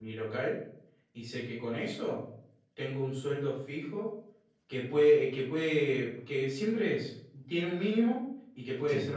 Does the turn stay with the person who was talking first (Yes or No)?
Yes